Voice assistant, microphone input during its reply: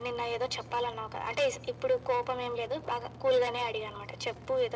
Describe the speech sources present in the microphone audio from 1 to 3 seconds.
echo only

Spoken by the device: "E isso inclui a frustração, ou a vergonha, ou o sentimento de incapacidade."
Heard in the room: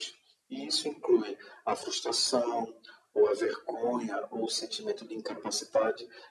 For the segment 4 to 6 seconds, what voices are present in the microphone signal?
echo only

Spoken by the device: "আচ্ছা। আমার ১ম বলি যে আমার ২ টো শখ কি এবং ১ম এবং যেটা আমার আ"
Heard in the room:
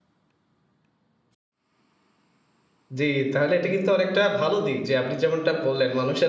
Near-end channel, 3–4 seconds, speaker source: user only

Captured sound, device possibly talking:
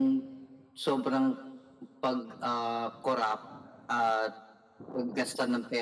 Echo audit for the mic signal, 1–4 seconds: echo only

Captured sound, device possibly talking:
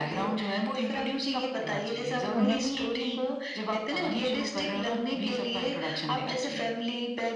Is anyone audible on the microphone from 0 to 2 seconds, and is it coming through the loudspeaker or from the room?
echo only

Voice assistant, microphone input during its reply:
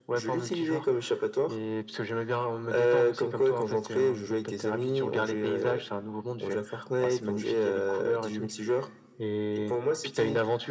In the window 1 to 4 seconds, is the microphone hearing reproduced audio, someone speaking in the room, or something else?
echo only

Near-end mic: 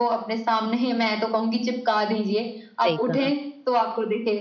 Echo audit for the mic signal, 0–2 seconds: echo only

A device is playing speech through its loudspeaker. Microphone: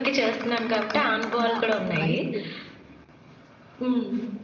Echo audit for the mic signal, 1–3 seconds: both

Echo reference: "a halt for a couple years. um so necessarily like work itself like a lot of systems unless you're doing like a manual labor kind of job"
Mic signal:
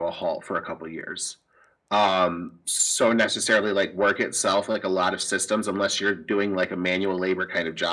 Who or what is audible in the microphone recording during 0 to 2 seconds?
echo only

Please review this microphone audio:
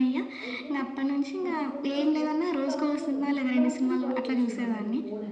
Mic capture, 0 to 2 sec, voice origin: both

